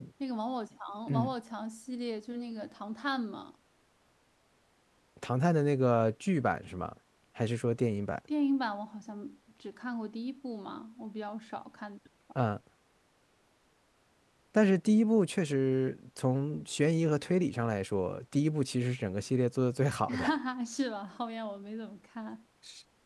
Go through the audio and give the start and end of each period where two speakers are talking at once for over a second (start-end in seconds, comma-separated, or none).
none